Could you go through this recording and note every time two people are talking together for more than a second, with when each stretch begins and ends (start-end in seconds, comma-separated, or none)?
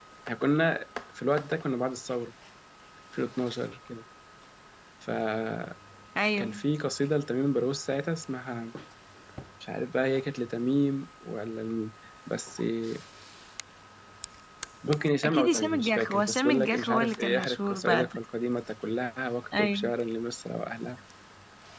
15.2-18.1